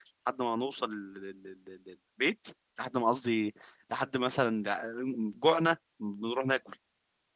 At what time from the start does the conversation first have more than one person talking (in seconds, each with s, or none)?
none